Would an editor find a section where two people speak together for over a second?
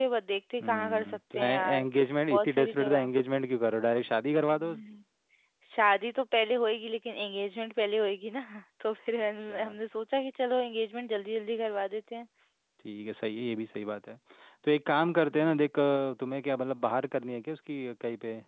Yes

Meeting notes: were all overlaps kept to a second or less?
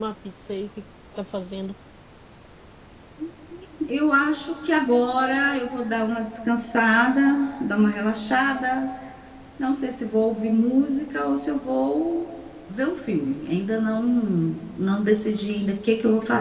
Yes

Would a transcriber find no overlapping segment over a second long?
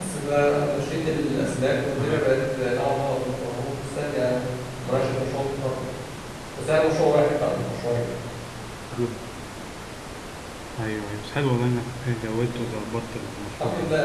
Yes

